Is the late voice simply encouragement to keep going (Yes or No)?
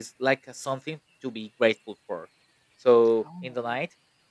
Yes